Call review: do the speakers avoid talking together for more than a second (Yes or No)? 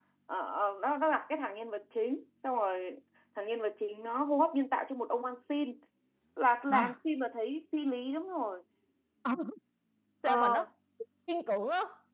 Yes